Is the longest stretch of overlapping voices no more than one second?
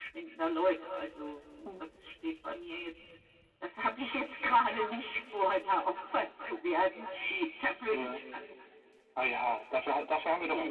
Yes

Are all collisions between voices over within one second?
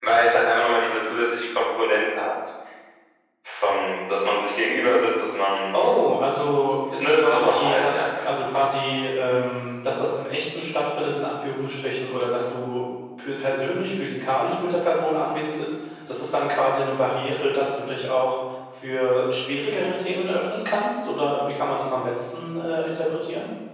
No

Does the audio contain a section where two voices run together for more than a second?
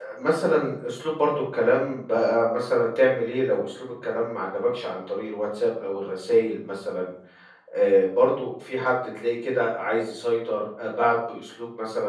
No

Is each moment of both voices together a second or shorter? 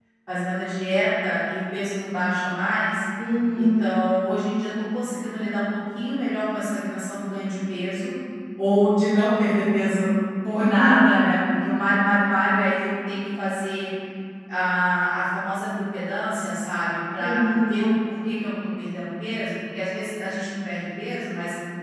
Yes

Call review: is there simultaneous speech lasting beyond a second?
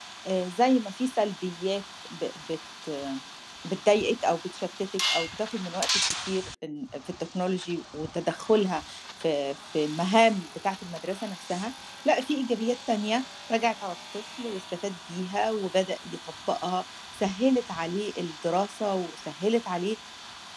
No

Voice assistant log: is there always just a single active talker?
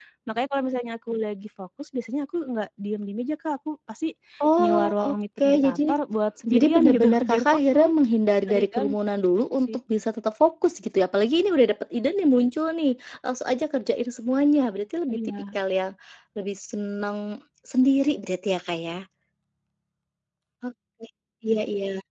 No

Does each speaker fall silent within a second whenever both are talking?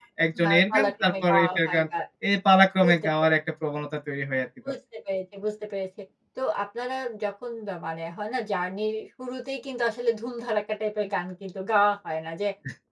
No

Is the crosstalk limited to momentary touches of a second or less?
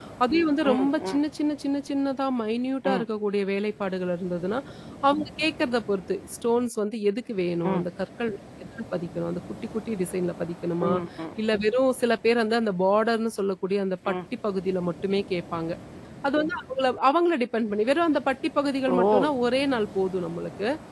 Yes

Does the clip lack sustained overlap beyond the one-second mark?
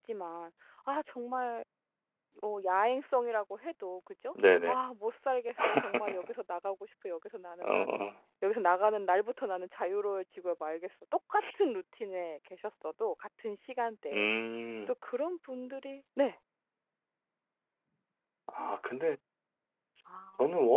Yes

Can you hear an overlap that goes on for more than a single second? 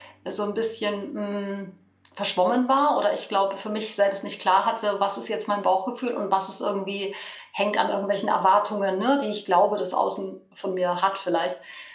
No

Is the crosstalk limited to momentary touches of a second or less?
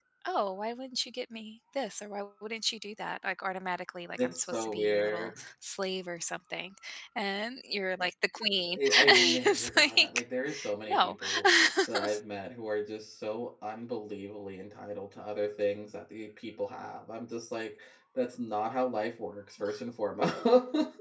No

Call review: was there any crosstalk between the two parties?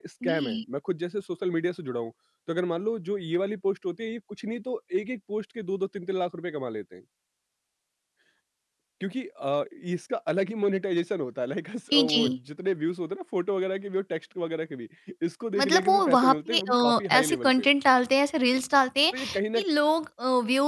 Yes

